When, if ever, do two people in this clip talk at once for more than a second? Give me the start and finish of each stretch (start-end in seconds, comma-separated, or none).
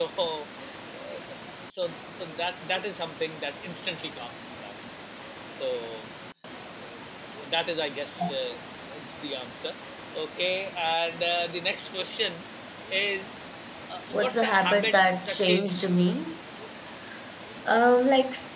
14.1-16.0